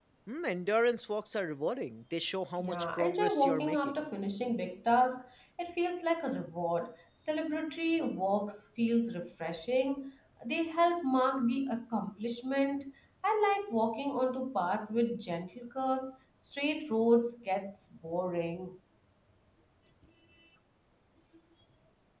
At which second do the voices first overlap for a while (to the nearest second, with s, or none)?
3 s